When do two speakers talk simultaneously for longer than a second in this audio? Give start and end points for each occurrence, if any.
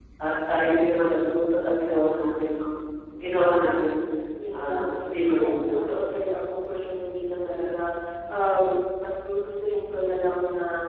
none

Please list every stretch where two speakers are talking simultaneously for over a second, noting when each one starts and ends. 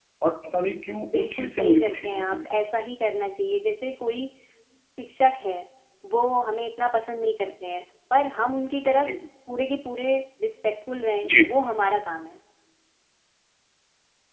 1.1-2.5

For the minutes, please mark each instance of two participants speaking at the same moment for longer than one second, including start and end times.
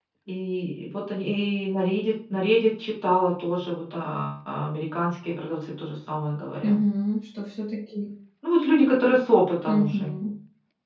none

